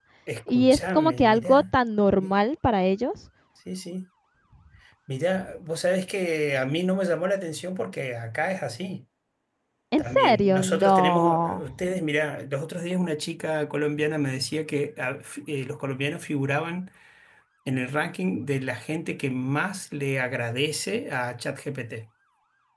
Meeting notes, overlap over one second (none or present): present